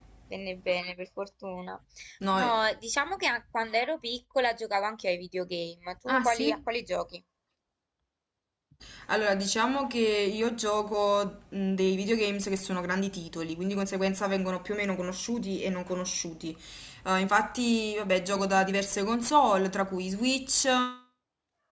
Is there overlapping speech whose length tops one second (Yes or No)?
No